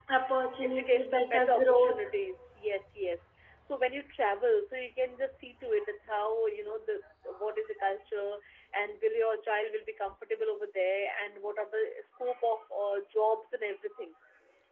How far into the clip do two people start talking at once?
1 s

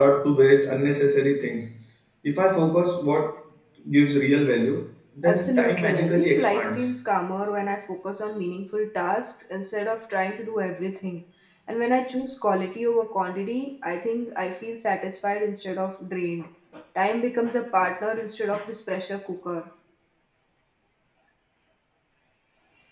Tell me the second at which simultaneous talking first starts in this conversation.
5 s

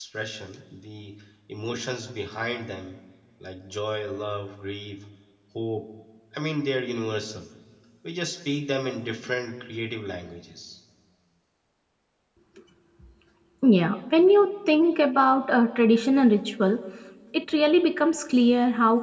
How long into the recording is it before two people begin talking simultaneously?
none

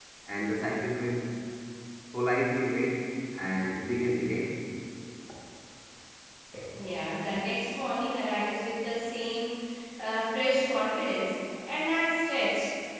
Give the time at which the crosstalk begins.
none

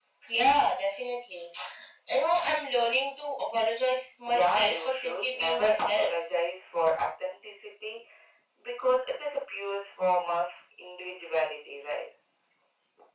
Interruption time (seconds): 4 s

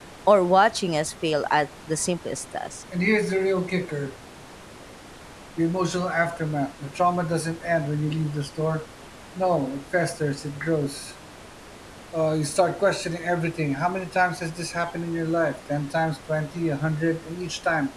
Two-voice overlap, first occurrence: none

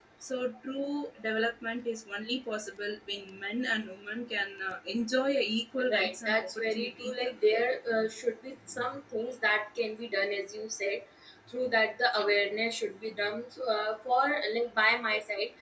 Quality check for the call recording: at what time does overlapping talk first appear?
6 s

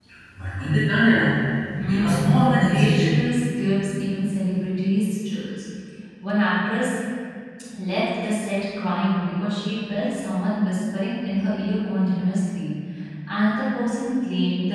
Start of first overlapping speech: 2 s

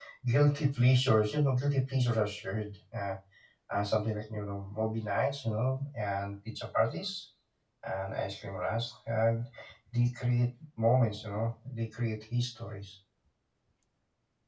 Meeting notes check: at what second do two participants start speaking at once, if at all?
none

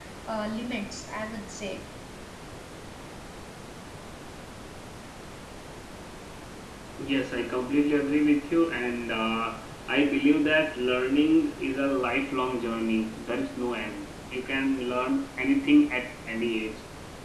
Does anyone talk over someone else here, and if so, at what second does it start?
none

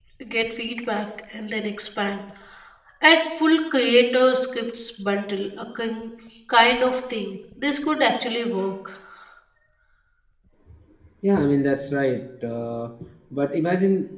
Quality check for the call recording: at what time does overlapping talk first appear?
none

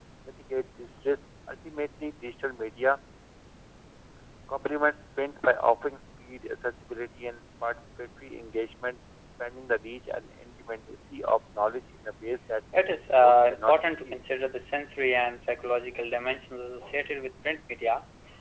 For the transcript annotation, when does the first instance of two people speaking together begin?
13 s

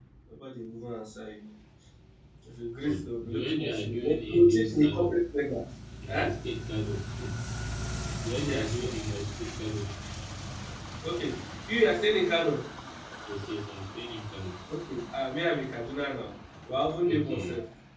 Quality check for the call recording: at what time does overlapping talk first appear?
3 s

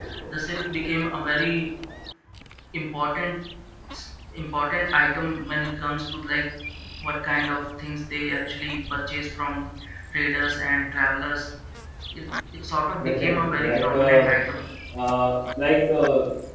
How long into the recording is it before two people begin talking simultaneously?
13 s

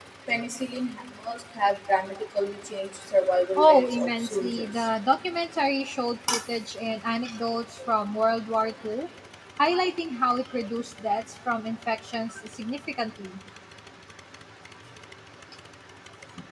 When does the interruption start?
4 s

